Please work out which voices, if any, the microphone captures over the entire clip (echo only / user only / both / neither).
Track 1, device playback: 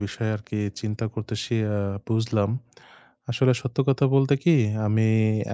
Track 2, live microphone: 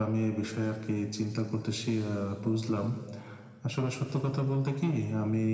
echo only